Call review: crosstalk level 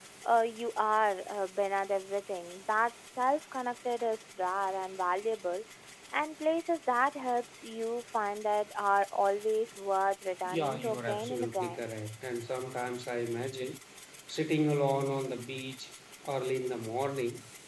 present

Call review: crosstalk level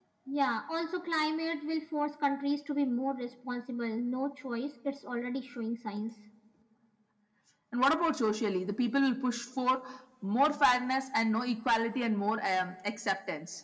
none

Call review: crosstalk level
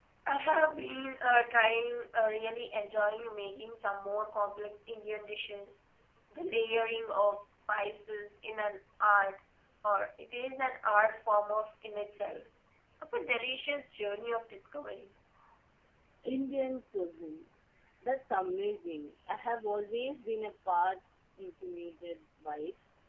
none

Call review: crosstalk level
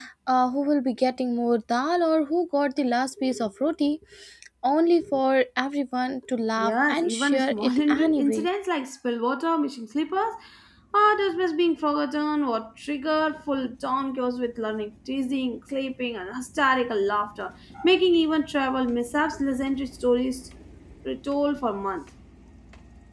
present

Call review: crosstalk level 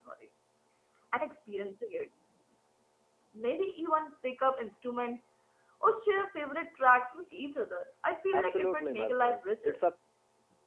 present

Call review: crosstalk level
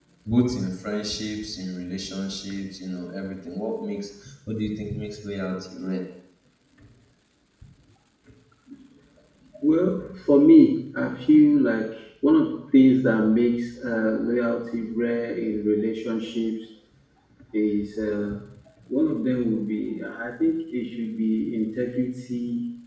none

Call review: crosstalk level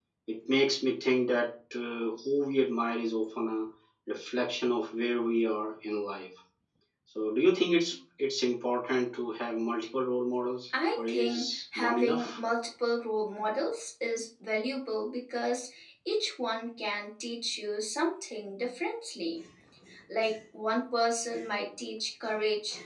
present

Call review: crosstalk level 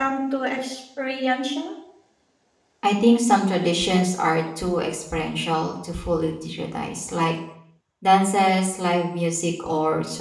none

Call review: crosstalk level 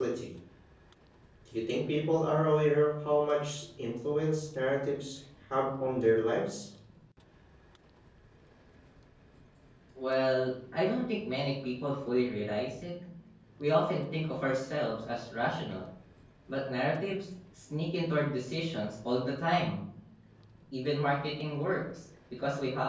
none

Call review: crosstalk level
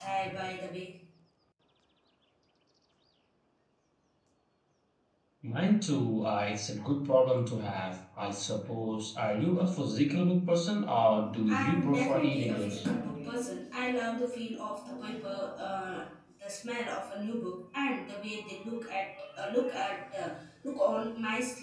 present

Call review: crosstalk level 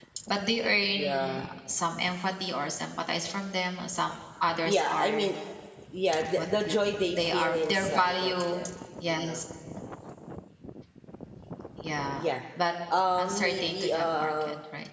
present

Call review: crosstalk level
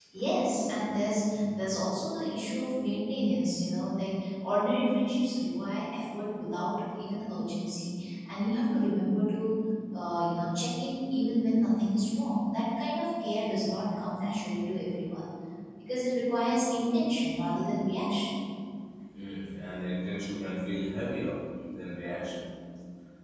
none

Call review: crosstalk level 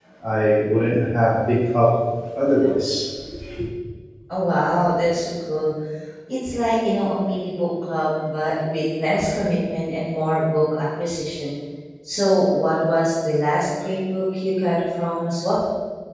none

